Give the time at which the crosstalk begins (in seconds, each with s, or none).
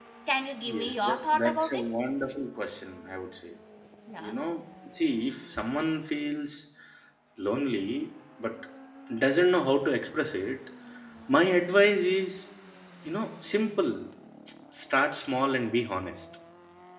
0.6 s